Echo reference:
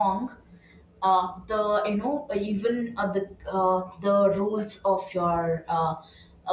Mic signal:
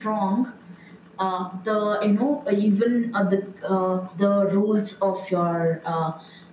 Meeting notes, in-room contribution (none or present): none